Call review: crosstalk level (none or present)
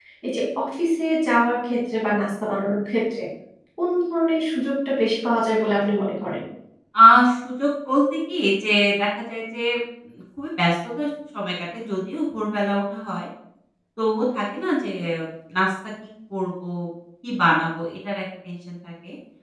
none